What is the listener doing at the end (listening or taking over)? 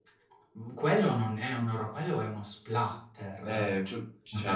taking over